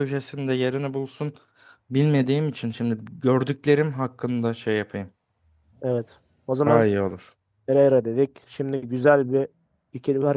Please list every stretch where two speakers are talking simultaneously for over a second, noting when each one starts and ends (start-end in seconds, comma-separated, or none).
none